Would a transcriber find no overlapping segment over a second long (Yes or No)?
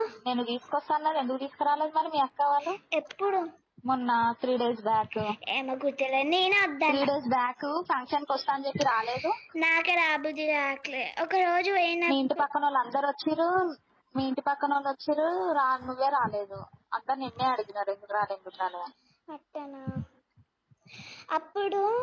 Yes